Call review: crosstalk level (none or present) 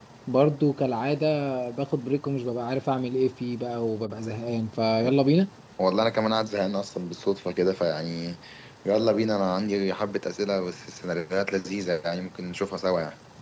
none